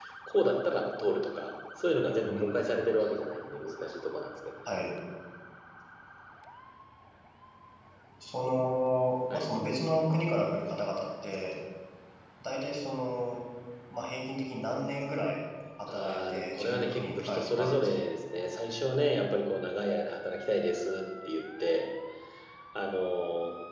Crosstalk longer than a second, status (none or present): present